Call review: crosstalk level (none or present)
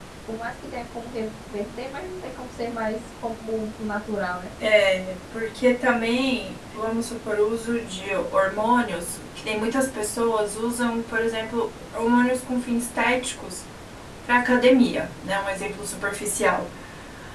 none